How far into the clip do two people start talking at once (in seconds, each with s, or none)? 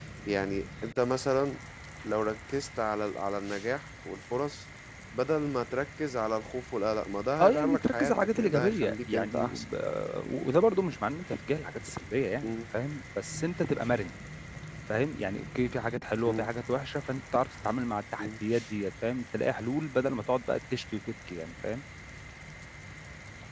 7.4 s